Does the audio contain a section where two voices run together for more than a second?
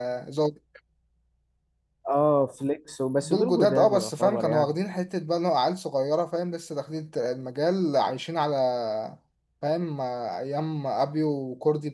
Yes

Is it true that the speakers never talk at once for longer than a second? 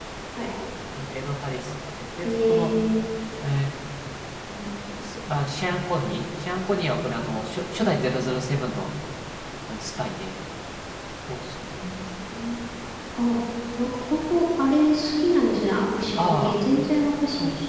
Yes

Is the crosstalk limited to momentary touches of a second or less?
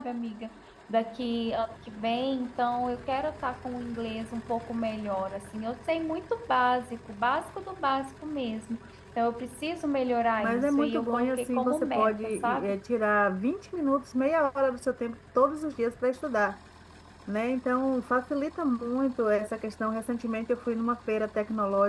No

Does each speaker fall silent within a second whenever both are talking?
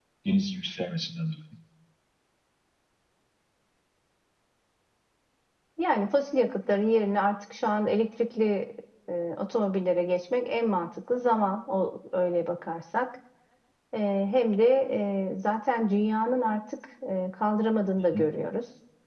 Yes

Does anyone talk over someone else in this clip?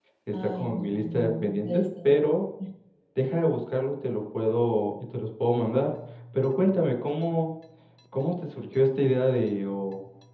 Yes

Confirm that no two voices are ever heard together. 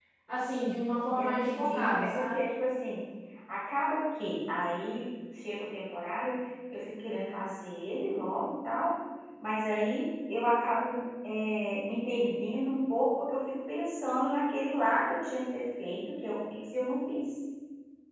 No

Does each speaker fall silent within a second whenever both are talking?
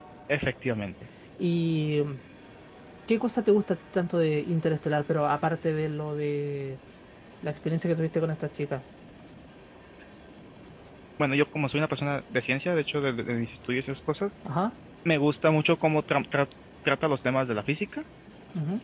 Yes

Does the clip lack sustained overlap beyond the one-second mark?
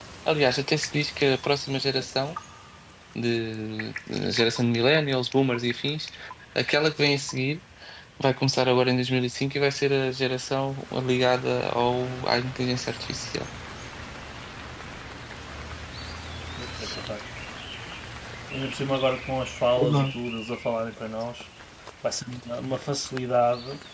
Yes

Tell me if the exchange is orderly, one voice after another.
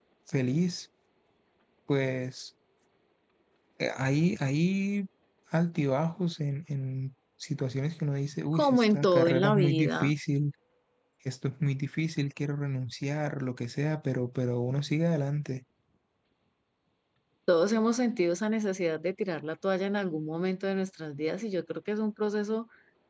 No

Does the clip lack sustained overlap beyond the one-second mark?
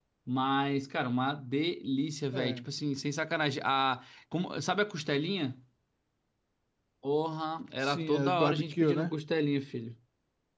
No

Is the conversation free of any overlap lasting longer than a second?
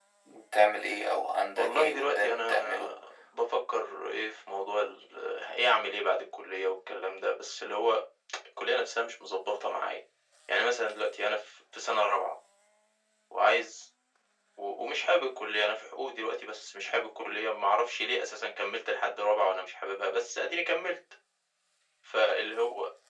No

